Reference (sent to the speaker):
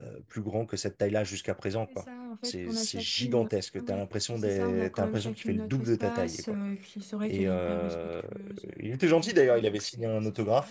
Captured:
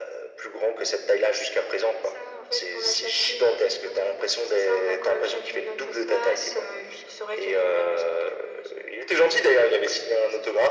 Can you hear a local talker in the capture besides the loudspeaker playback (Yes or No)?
No